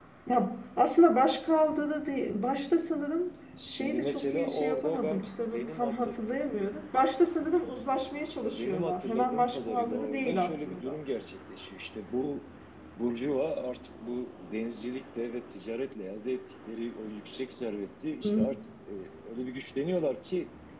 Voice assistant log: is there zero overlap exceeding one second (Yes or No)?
No